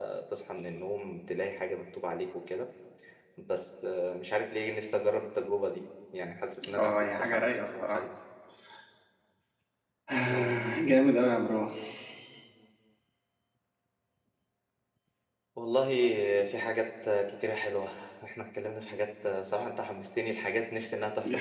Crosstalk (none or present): present